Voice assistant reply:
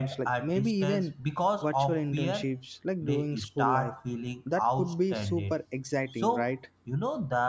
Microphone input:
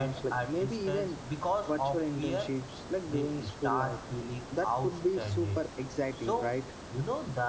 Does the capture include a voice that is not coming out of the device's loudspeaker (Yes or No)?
No